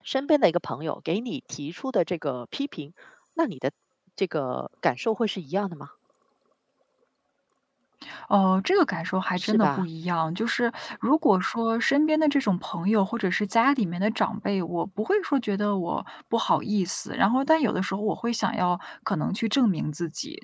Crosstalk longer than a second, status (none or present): none